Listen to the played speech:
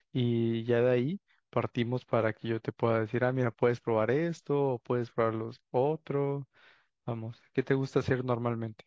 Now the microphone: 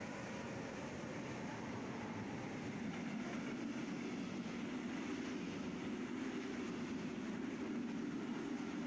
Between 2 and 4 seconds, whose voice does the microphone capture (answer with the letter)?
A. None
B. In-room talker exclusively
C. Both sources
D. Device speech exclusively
A